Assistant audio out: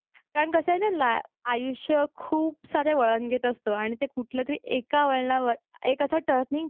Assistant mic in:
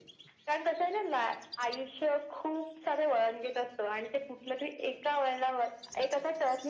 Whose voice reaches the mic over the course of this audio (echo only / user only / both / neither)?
echo only